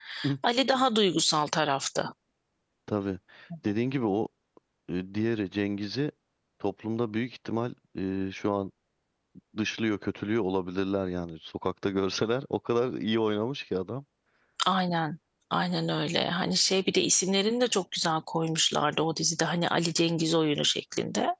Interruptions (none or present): none